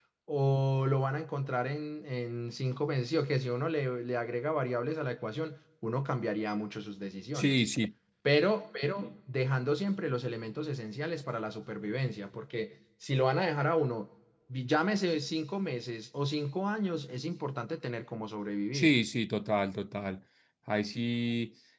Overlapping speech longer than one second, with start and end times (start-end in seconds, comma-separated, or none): none